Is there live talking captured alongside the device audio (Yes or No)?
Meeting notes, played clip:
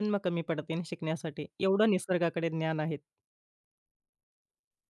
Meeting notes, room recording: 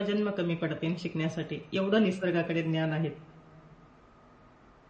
No